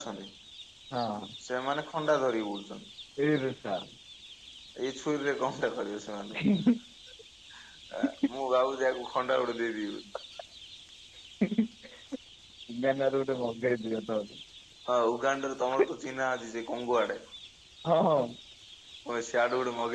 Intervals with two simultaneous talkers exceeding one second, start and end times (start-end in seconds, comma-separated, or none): none